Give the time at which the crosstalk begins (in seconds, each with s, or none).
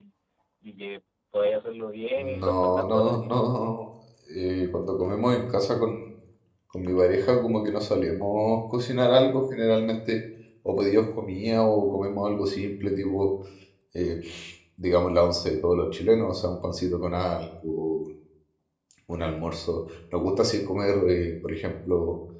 2.2 s